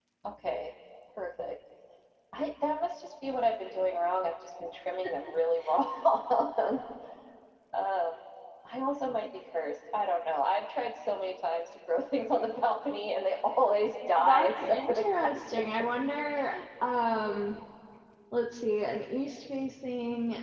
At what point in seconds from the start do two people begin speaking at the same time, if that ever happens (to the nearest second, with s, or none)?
14 s